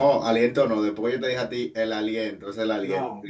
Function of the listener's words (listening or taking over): listening